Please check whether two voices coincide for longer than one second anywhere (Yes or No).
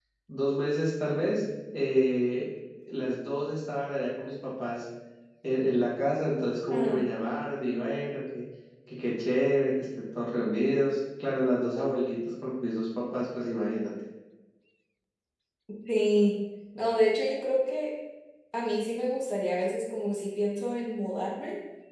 No